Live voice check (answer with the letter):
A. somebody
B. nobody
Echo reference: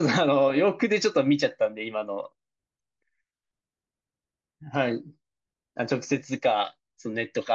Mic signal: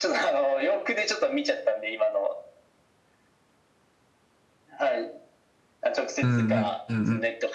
A